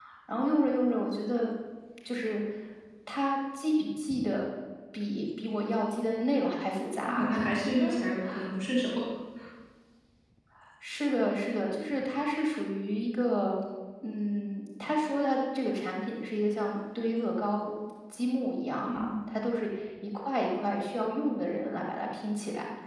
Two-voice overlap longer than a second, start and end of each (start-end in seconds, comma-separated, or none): none